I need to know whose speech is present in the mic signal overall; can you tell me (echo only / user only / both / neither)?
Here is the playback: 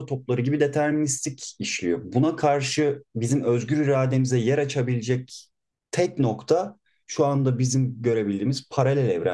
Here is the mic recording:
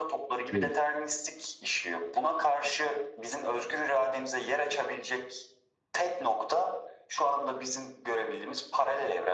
both